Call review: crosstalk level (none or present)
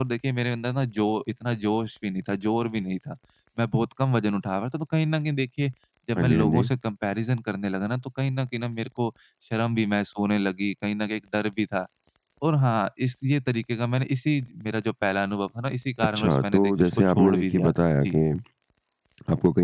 present